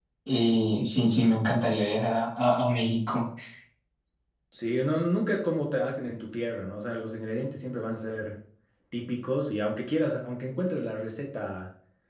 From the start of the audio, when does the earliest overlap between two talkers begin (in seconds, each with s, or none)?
none